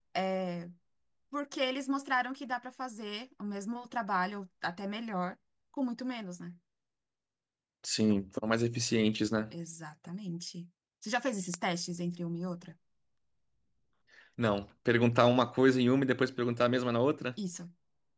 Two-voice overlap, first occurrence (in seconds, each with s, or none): none